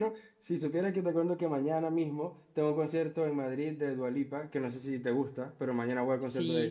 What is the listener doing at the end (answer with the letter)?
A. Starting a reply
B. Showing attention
A